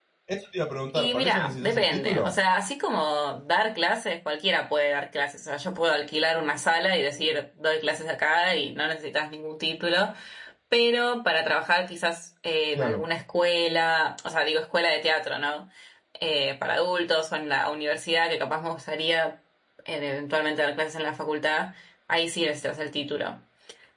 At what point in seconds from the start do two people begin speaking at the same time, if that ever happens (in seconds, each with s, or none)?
0.9 s